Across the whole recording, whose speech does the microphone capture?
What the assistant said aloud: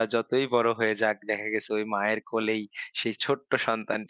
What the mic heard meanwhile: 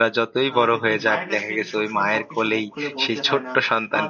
both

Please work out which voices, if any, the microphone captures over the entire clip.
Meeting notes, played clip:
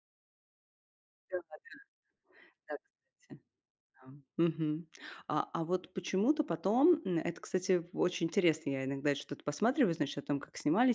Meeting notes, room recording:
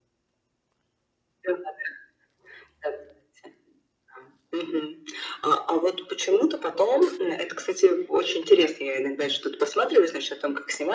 echo only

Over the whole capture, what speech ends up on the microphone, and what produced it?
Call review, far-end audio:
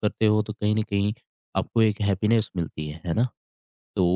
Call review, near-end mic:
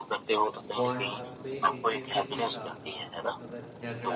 both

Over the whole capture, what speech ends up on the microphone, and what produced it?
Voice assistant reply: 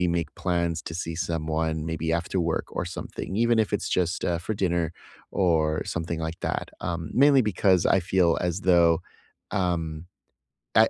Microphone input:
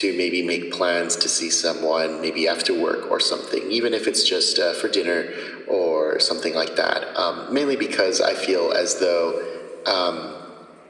echo only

